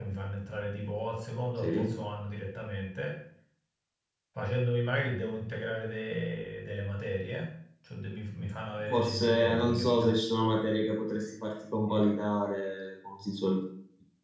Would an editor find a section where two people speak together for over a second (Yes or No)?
Yes